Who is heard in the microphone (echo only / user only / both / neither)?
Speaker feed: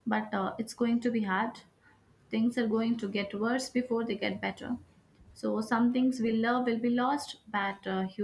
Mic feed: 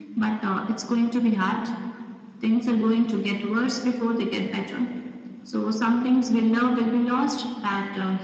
echo only